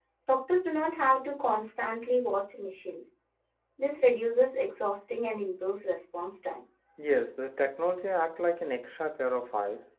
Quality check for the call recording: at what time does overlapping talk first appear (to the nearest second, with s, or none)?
none